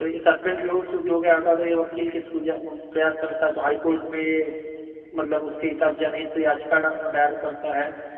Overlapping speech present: No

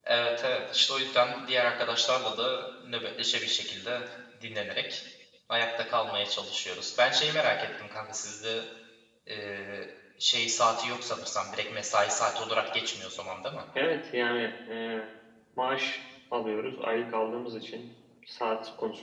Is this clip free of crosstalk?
Yes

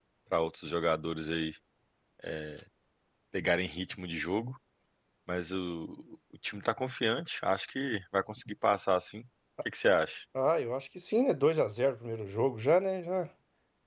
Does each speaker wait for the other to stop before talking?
Yes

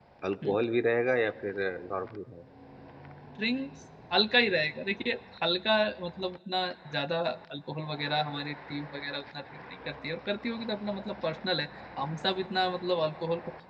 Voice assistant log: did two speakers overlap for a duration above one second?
No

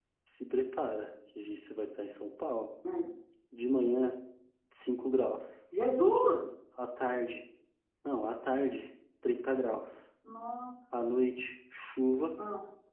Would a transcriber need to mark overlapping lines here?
No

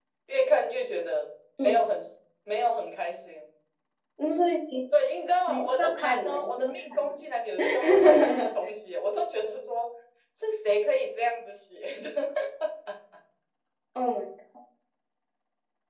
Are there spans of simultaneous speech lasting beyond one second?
Yes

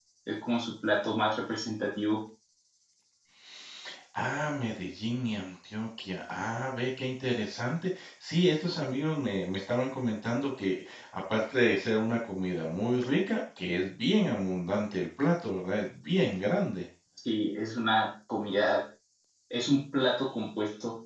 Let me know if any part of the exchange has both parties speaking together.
No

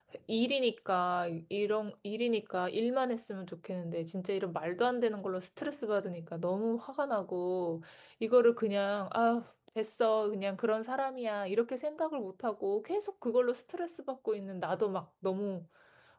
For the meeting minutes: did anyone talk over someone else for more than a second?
No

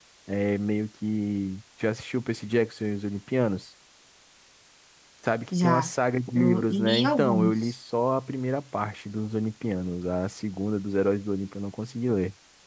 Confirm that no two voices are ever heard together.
No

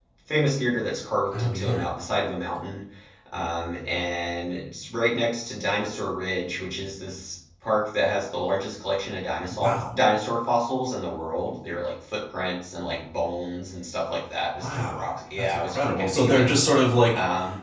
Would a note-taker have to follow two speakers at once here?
Yes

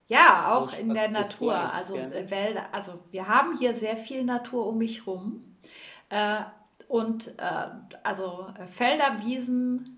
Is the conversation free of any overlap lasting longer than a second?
No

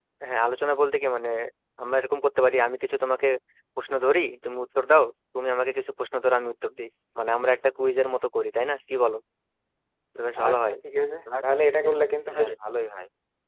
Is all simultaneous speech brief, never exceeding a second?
Yes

